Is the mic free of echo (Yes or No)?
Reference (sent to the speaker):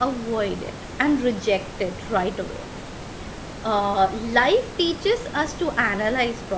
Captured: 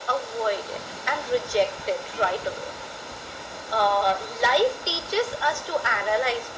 No